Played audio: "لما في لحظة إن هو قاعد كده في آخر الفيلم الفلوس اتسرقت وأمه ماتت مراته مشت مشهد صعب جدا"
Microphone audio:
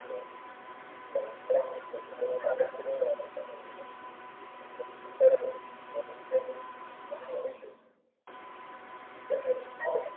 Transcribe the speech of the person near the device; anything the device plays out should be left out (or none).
none